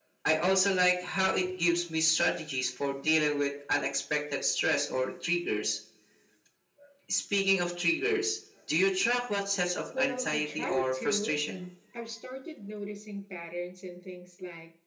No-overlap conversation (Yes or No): No